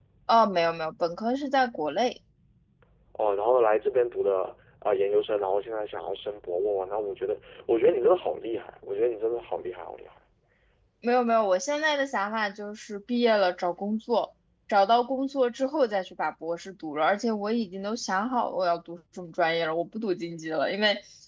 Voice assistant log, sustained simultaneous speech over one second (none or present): none